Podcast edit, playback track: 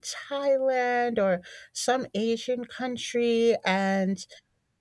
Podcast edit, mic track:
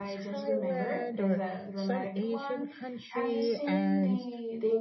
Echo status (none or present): present